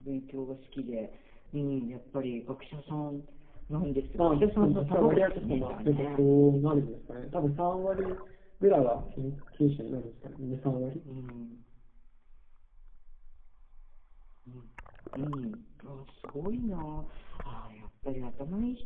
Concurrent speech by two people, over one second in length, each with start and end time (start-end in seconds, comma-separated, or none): 3.8-6.2